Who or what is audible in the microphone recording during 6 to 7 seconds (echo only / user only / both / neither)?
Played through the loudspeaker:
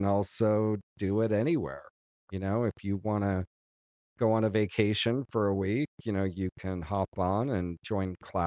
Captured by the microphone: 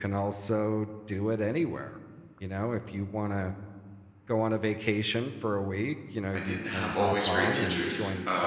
both